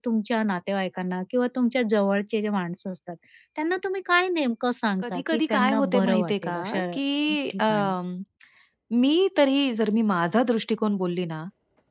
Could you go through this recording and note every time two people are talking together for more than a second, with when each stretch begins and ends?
5.0-6.8

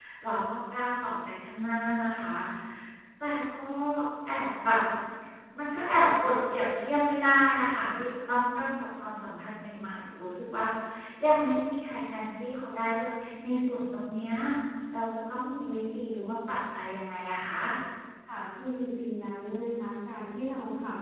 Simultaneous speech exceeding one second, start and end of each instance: none

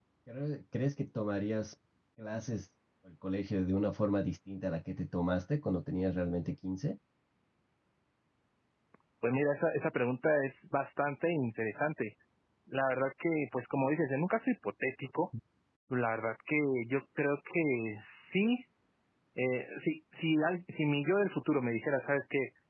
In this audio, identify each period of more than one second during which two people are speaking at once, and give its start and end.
none

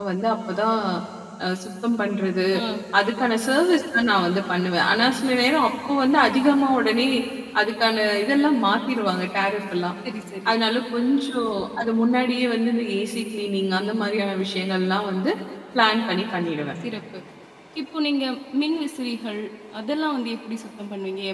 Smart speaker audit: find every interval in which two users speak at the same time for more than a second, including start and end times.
none

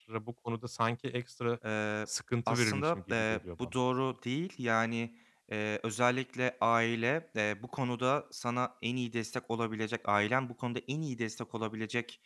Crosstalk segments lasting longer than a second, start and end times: 2.5-3.7

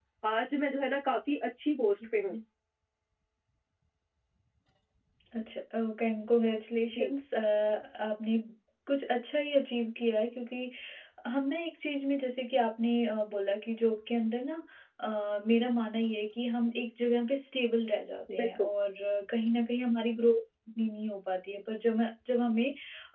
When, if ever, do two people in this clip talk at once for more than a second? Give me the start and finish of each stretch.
none

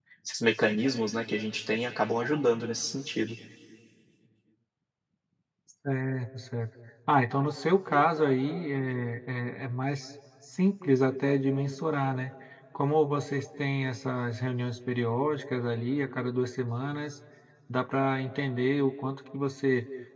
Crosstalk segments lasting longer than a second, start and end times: none

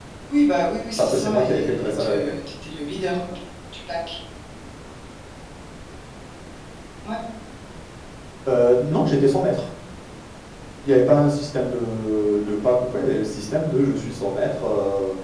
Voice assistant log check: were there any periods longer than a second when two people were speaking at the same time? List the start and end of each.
1.0-2.3

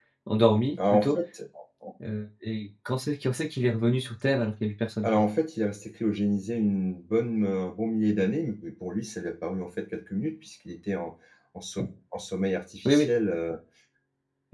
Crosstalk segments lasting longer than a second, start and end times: none

